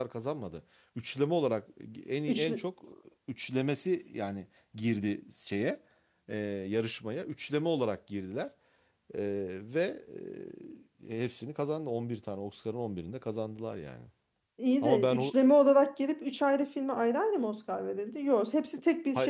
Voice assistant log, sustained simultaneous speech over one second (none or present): none